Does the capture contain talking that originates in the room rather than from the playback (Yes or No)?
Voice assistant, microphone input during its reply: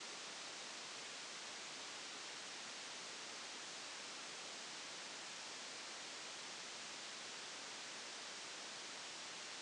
No